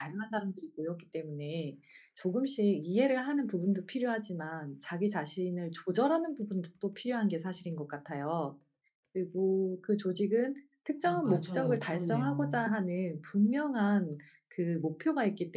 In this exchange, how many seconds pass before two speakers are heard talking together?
11.0 s

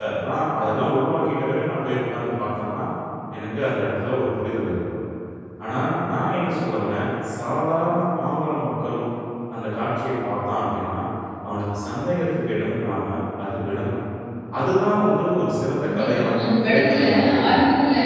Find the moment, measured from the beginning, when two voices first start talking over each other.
15.8 s

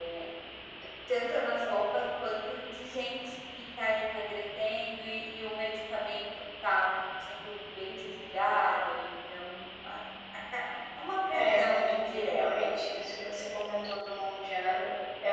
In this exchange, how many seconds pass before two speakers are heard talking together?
11.3 s

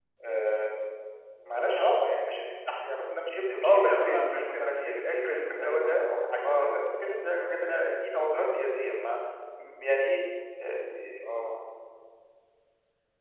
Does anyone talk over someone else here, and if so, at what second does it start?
3.5 s

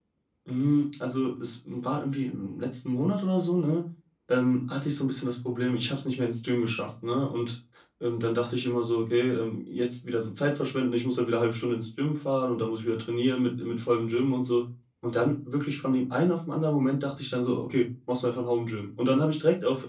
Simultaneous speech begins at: none

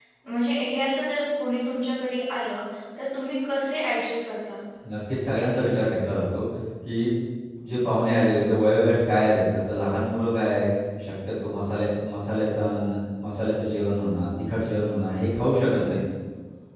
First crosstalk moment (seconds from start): none

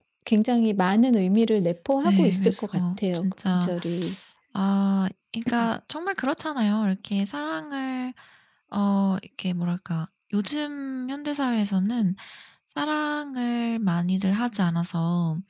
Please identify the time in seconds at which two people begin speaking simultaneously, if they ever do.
2.0 s

